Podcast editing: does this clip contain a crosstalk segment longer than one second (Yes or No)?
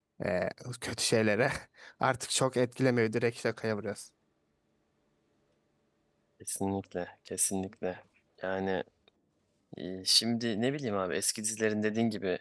No